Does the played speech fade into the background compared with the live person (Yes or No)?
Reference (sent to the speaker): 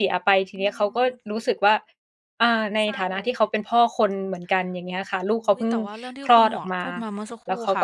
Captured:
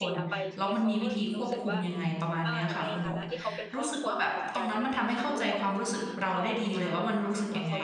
Yes